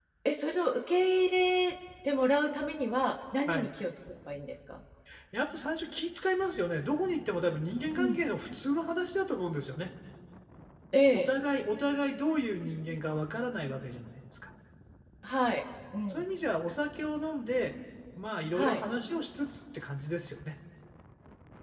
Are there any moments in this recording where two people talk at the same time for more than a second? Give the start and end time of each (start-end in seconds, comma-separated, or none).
none